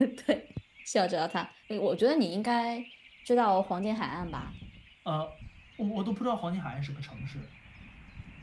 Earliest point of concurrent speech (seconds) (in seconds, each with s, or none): none